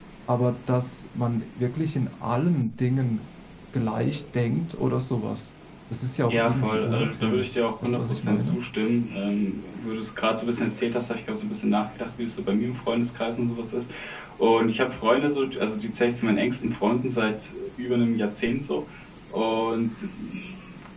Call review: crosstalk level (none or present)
present